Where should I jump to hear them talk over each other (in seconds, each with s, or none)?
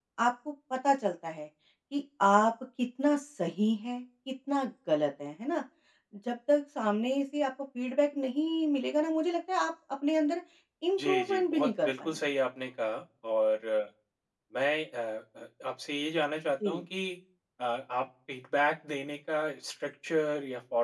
11.0 s